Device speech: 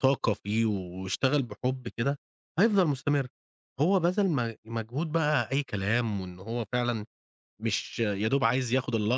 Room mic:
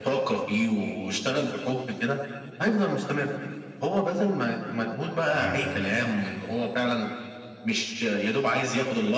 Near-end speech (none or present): present